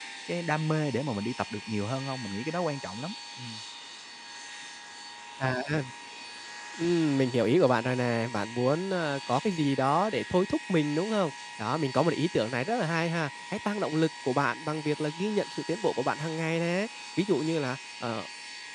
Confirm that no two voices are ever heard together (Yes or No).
Yes